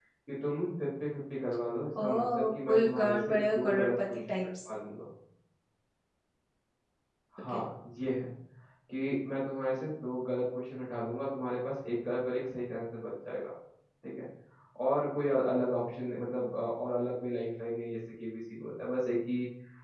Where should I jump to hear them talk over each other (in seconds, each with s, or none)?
1.9 s